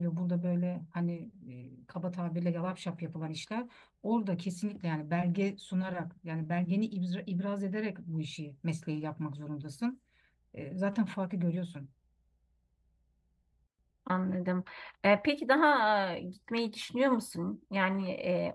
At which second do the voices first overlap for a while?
none

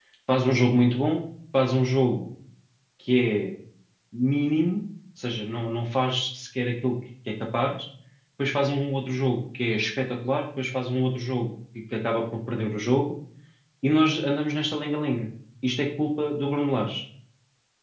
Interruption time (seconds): none

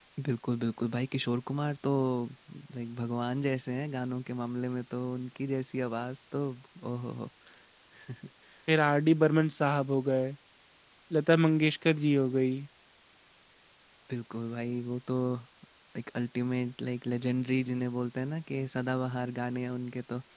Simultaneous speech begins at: none

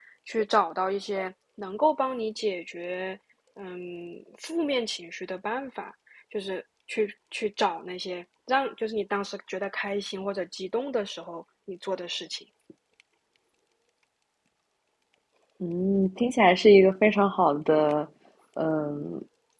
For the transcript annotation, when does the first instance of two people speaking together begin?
none

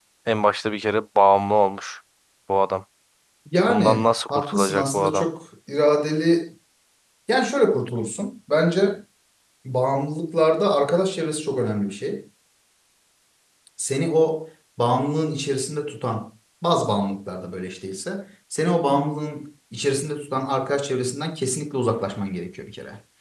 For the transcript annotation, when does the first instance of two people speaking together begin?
3.7 s

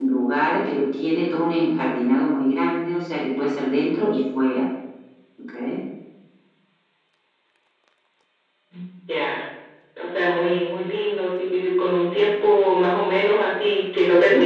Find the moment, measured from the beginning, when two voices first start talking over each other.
none

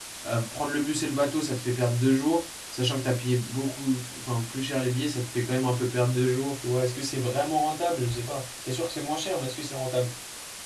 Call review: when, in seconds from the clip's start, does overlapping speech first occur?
none

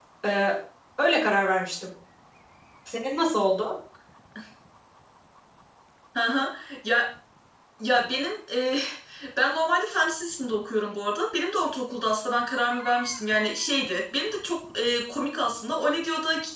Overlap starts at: none

